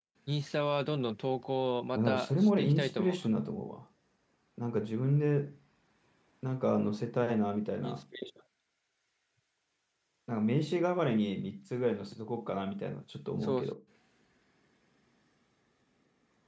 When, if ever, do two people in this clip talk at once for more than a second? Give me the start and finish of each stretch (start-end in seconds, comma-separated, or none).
1.9-3.3